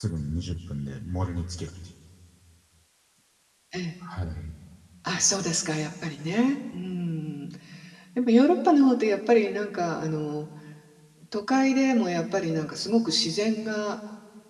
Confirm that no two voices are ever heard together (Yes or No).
Yes